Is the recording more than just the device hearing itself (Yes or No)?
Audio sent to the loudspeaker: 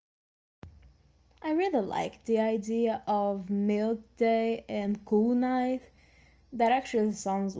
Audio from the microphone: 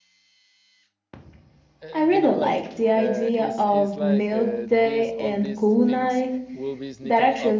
Yes